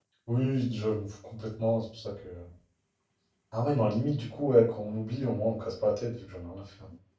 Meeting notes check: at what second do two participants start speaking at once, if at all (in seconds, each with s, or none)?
none